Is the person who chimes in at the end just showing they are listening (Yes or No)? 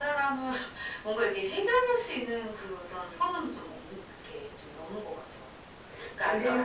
No